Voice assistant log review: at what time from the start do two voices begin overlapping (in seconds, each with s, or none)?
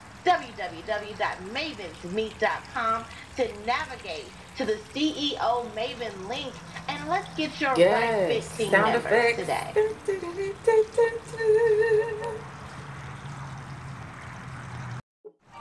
7.7 s